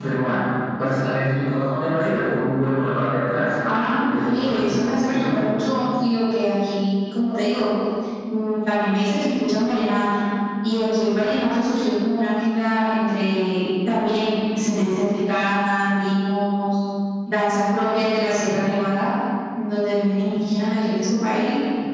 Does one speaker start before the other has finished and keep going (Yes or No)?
Yes